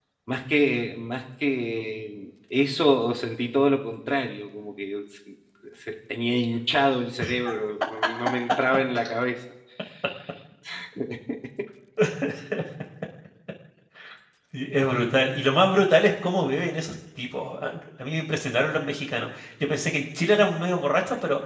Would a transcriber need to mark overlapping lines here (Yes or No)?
No